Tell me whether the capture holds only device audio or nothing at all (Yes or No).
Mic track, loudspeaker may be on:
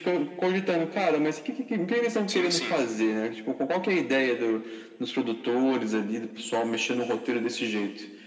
No